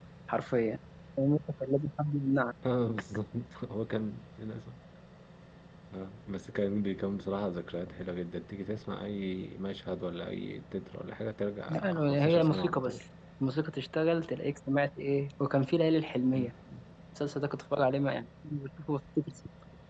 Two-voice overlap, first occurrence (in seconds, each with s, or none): 11.7 s